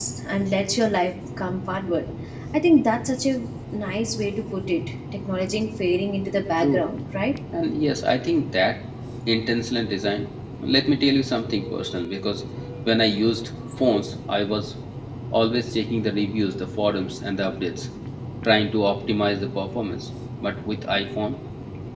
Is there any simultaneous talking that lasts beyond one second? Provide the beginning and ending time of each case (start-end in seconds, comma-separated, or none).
none